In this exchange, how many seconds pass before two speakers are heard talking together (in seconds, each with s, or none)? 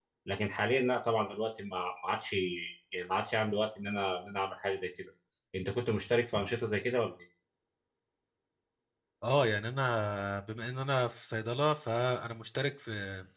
none